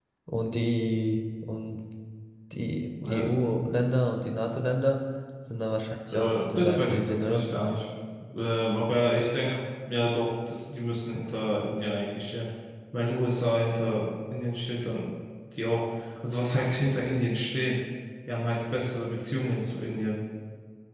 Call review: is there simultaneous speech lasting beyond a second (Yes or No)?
Yes